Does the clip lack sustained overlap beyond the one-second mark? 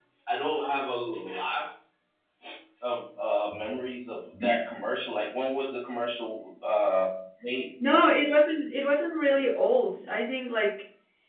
Yes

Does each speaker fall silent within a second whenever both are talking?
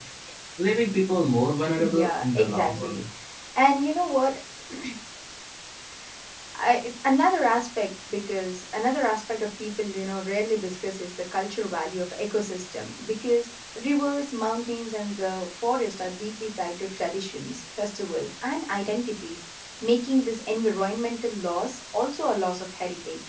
No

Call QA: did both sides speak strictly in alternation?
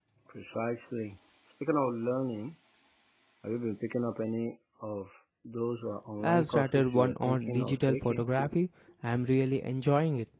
No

